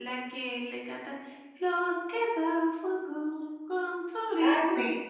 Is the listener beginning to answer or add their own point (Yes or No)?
Yes